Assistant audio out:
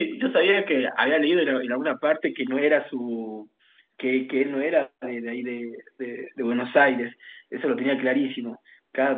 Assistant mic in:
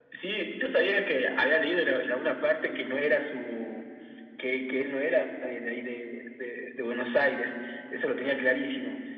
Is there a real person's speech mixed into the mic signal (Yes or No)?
No